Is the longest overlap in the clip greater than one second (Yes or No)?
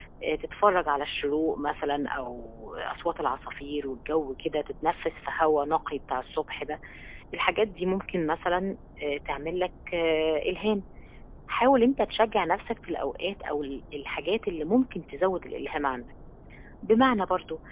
No